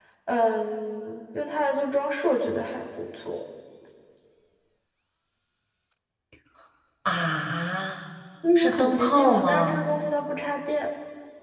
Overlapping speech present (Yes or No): Yes